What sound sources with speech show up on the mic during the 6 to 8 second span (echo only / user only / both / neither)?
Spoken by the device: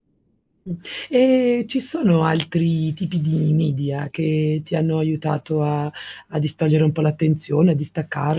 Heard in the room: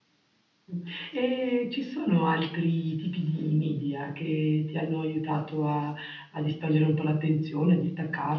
echo only